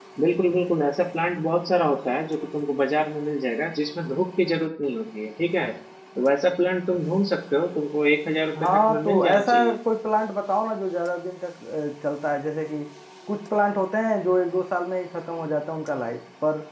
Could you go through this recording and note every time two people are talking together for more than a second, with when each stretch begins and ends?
8.6-9.8

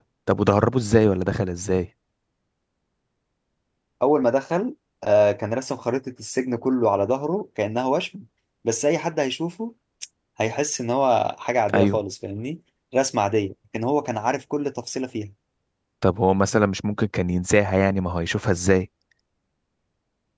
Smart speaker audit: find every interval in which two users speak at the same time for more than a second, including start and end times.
none

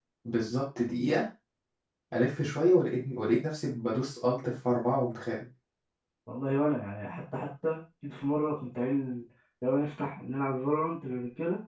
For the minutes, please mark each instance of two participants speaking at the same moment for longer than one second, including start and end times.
none

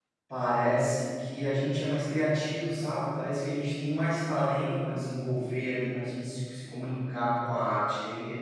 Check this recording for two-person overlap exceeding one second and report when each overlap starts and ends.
none

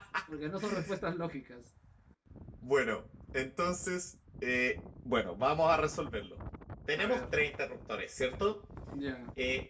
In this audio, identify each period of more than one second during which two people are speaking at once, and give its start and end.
none

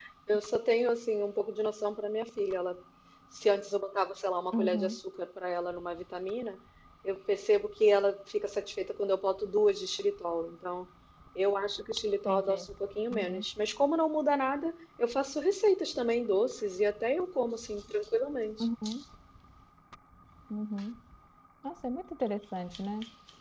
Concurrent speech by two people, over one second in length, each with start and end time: none

